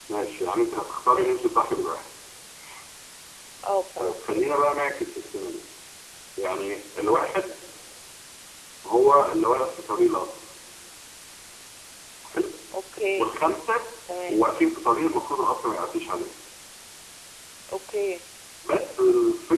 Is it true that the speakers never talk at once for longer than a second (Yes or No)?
Yes